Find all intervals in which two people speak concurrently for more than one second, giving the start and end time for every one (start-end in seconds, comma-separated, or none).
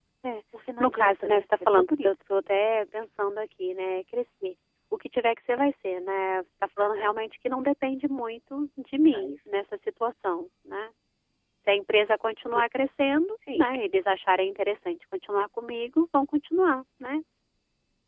0.8-2.1